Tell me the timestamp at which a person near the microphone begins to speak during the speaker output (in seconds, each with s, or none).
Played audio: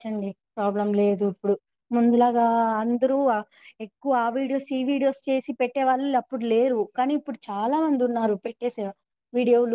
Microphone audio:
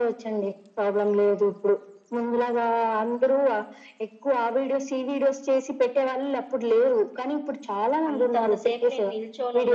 8.1 s